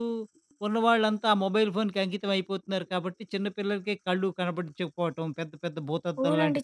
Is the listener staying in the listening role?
No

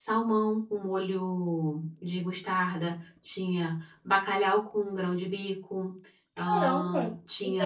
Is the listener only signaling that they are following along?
No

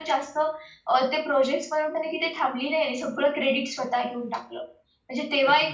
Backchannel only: Yes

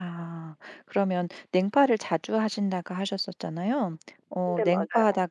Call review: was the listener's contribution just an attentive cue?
Yes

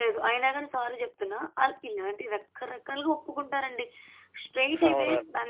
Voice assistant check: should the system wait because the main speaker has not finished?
Yes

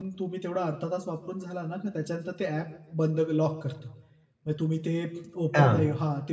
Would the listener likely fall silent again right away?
Yes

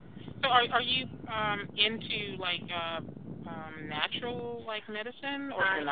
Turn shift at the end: Yes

